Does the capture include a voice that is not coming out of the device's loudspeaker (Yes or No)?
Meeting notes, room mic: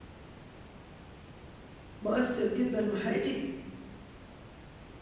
Yes